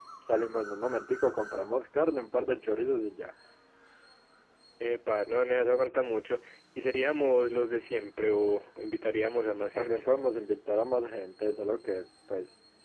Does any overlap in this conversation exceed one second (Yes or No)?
No